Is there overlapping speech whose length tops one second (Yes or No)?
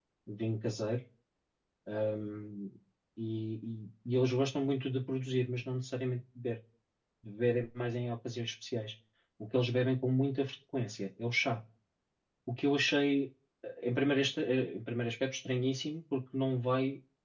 No